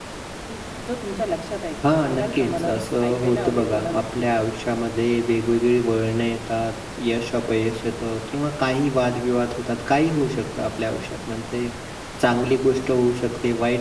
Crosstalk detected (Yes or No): Yes